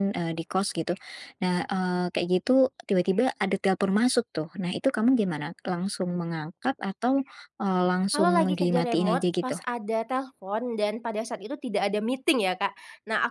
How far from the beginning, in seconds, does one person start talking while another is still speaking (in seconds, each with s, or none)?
8.1 s